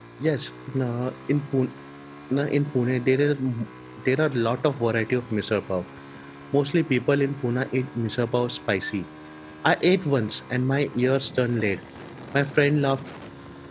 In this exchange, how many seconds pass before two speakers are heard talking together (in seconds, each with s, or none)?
none